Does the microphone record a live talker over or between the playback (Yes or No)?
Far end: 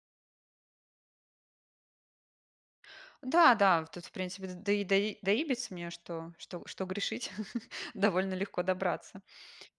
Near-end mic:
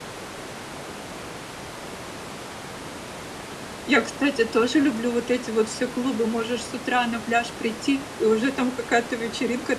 Yes